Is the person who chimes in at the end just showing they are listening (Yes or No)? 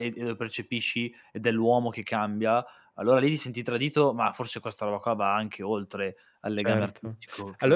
No